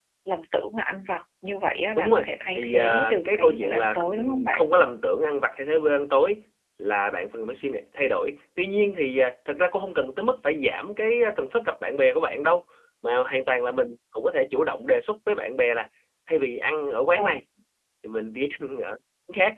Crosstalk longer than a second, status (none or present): present